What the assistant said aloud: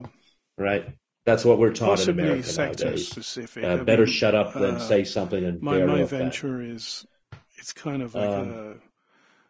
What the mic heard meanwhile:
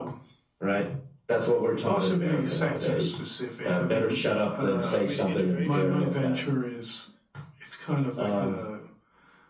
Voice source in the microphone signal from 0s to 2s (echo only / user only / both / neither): echo only